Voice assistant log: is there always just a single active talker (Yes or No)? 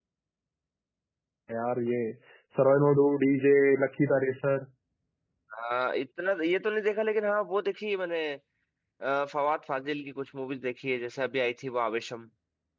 Yes